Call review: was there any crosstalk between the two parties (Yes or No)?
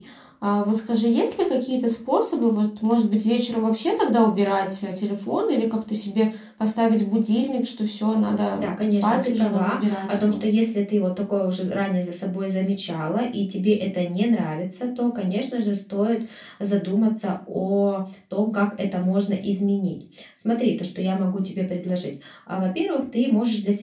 Yes